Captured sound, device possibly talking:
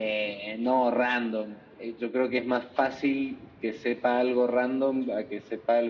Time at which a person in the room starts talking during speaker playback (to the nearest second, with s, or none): none